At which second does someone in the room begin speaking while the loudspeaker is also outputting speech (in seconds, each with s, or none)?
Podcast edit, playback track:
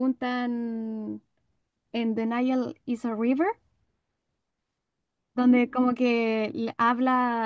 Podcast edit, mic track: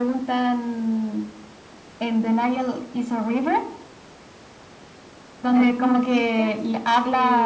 5.5 s